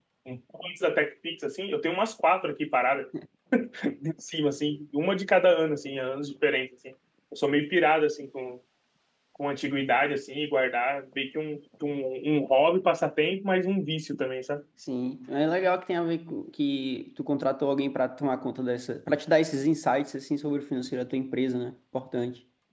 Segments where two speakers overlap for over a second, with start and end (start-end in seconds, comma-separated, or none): none